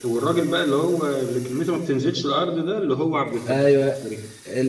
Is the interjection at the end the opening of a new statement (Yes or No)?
Yes